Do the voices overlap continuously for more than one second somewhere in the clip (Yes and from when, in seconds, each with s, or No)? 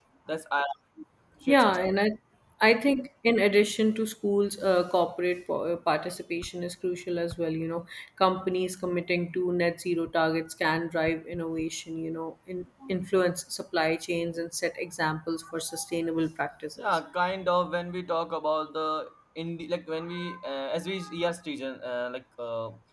No